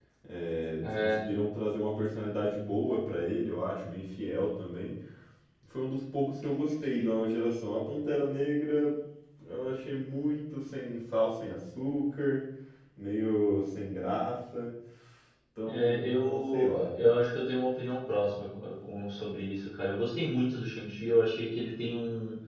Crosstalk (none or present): present